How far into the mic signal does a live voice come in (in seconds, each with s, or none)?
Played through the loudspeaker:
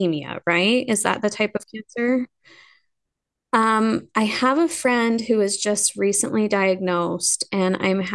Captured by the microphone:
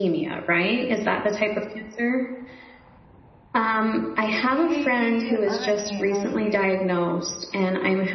4.5 s